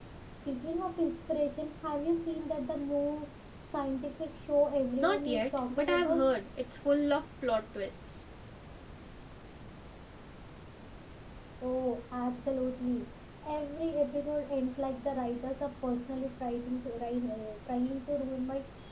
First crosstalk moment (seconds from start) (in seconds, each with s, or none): 4.8 s